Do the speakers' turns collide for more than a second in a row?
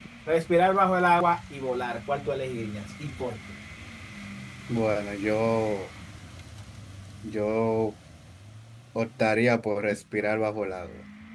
No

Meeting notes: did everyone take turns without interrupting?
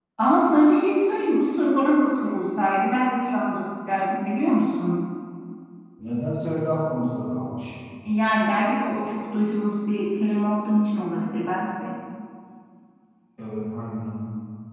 Yes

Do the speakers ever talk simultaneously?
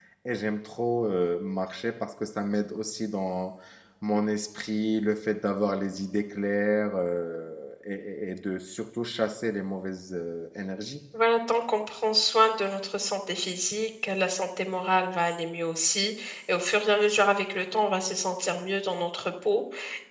No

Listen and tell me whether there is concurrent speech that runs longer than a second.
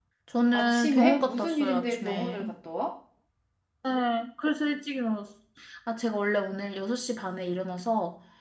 Yes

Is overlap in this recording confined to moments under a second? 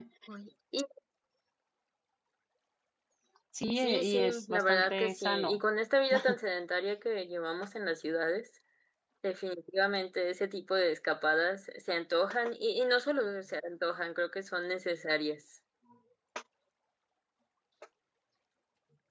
No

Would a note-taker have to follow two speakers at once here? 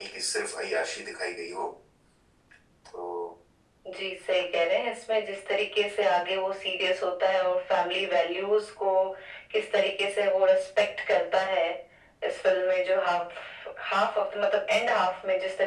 No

